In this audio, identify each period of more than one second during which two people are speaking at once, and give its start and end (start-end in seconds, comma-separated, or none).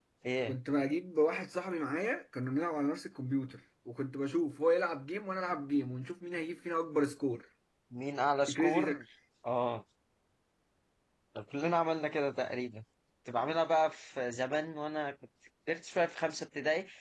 none